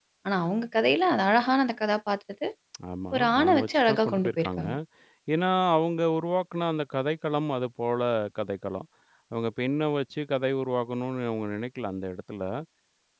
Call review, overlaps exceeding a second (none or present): present